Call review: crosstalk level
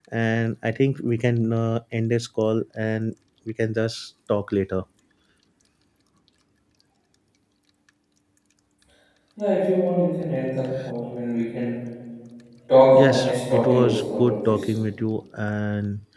present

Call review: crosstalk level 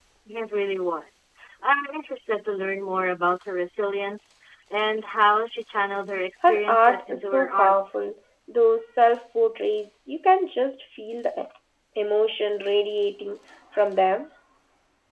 present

